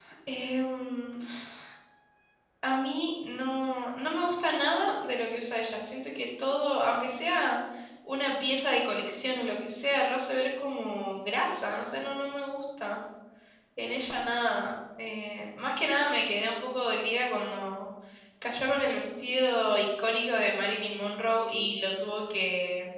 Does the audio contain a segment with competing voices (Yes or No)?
No